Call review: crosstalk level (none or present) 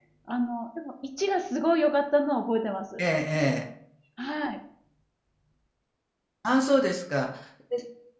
none